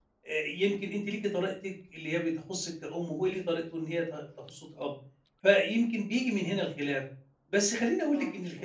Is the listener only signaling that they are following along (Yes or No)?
Yes